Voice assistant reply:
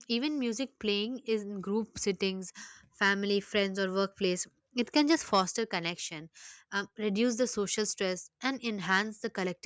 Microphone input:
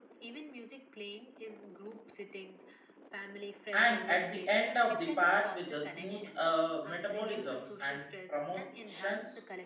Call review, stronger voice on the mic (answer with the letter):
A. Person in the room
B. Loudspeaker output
A